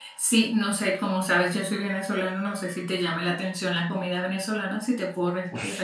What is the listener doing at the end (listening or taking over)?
taking over